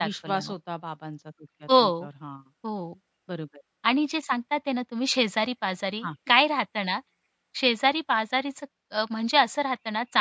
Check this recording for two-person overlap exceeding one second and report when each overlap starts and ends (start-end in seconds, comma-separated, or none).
none